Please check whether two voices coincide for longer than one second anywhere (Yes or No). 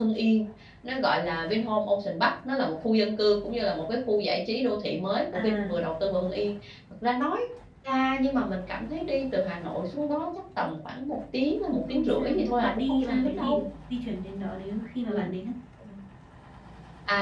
Yes